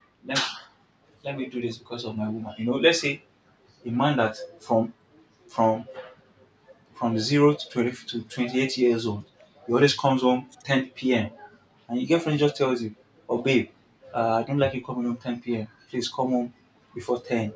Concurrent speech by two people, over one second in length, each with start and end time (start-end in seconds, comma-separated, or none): none